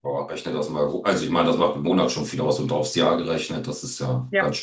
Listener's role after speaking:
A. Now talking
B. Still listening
A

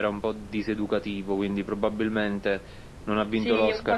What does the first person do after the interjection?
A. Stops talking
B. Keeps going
A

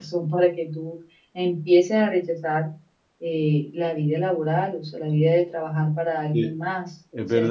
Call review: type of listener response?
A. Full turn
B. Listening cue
A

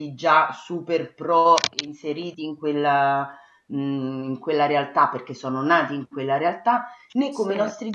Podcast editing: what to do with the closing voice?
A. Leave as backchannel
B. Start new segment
A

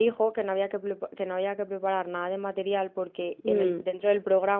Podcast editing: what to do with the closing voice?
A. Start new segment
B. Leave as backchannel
B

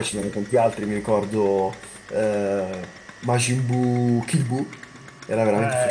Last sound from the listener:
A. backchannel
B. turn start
B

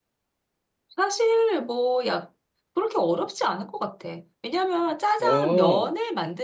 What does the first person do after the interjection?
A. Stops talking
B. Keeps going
B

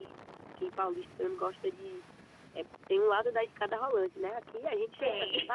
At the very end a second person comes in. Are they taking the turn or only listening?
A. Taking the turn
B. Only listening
B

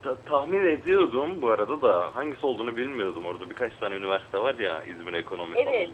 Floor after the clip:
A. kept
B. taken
B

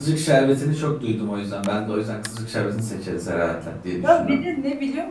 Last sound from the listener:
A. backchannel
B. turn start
B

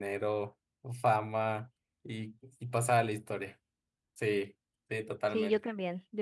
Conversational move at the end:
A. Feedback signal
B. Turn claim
B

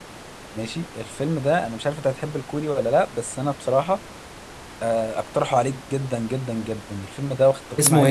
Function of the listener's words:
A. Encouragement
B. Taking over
B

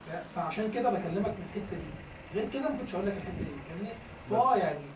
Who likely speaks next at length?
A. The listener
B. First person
B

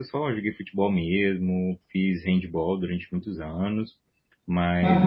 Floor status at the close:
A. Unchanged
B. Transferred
A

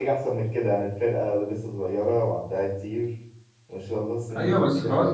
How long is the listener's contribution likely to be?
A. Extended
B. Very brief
A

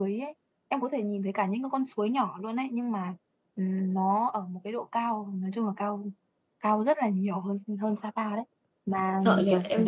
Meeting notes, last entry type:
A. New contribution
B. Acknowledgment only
A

